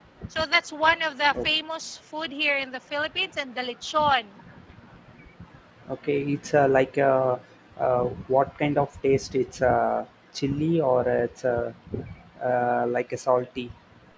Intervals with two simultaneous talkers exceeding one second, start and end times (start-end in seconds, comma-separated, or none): none